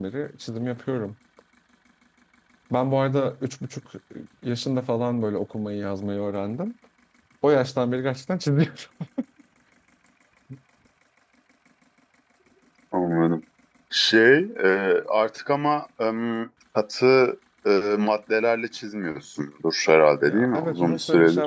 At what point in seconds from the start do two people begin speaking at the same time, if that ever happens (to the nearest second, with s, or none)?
20 s